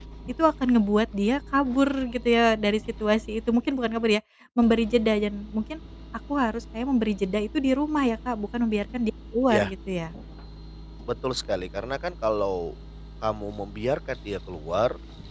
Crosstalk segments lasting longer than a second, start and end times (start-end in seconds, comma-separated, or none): none